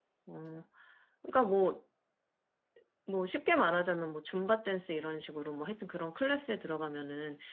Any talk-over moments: No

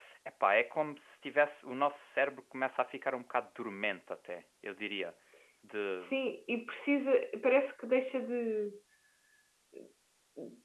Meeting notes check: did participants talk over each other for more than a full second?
No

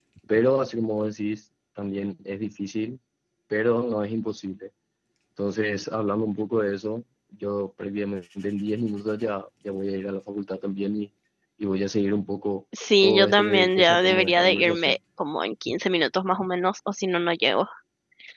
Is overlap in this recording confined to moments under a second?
No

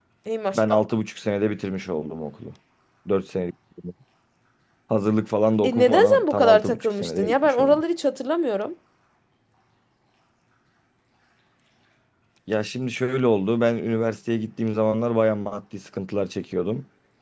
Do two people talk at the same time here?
Yes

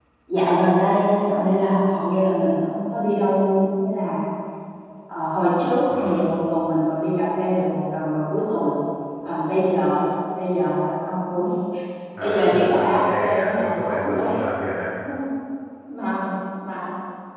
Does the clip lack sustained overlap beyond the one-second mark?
No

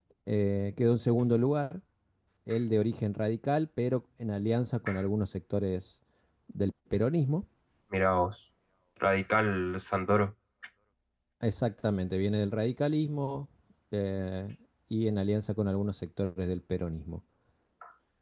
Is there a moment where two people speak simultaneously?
No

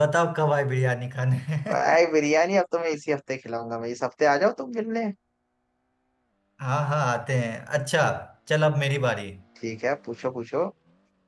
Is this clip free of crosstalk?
Yes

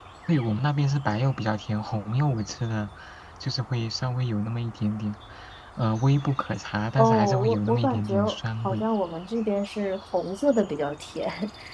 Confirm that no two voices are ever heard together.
No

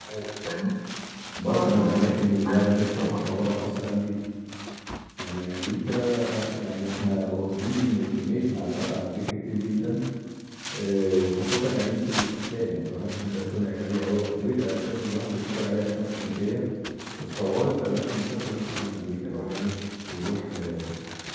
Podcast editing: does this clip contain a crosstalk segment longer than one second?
Yes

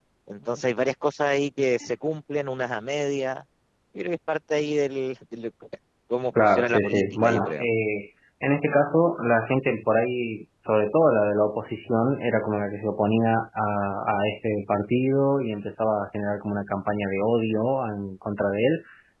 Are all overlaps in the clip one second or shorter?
No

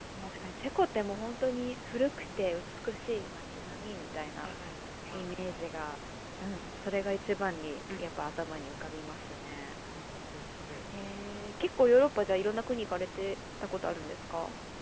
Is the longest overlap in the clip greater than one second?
No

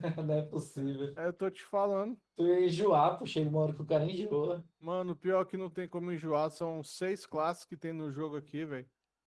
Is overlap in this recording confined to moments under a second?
Yes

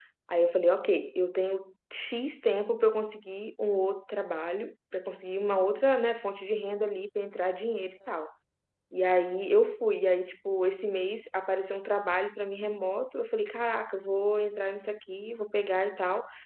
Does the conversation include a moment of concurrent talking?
No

